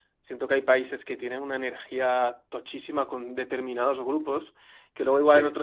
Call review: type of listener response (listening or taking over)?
listening